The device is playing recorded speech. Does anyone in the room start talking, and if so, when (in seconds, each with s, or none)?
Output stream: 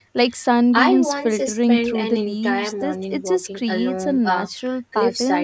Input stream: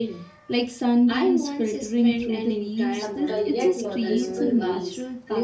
2.9 s